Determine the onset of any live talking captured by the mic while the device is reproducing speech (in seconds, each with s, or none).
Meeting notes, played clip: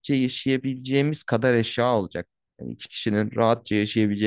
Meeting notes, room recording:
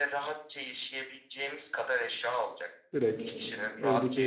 2.9 s